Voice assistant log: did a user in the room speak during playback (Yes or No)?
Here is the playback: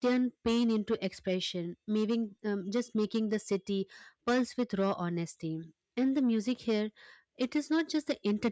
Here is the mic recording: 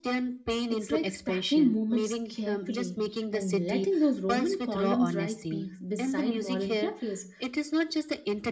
Yes